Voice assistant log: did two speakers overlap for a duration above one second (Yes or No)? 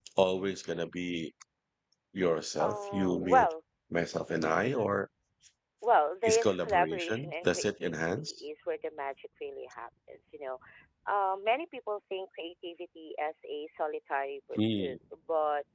Yes